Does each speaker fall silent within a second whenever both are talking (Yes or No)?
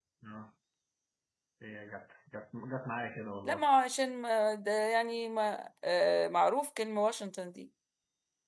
Yes